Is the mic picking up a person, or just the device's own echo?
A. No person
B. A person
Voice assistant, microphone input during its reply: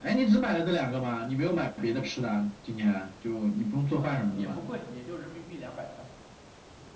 B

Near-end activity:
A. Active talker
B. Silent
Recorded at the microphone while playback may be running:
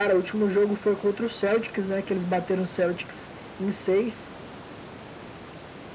B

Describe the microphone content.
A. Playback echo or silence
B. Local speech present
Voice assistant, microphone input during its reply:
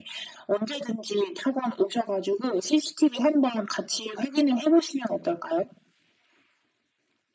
A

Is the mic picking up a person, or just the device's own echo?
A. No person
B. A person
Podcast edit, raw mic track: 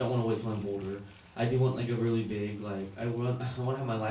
B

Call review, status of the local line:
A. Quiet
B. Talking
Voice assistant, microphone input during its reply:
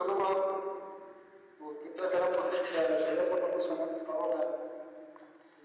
A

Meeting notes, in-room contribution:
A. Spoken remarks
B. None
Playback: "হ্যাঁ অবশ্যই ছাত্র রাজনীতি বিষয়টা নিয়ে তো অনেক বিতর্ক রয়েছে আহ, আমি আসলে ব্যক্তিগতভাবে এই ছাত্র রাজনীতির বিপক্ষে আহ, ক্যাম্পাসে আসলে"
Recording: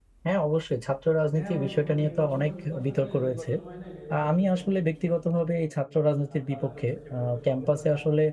A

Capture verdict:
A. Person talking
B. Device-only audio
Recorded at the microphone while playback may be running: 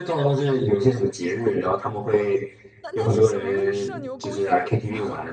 A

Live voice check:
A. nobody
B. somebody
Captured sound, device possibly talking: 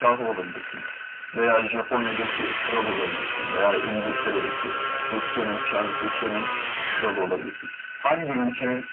A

